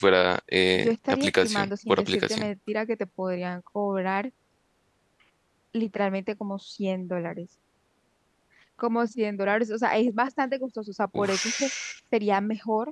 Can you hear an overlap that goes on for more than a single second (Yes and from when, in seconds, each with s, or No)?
Yes, from 0.8 s